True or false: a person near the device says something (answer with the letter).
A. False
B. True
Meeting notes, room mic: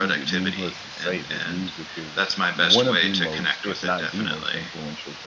B